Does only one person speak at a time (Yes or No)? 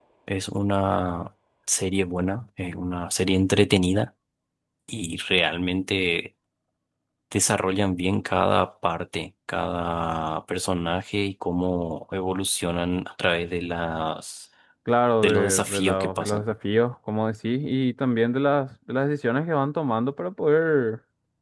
No